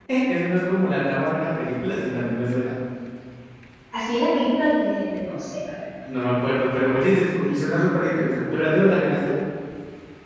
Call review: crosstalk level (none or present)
none